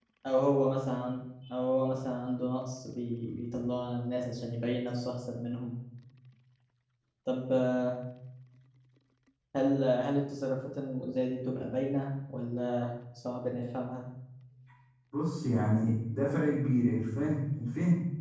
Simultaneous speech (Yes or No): No